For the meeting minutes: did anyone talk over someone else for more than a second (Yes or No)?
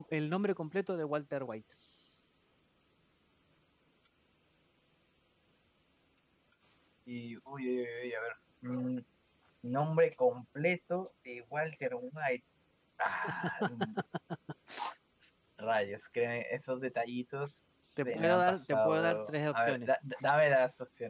Yes